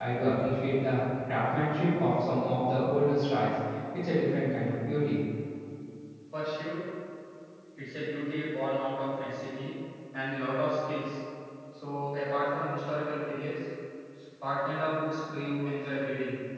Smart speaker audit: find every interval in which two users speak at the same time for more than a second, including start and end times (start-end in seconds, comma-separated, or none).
none